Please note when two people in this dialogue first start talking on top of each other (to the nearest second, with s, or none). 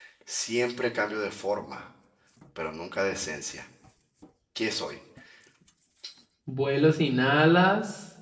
none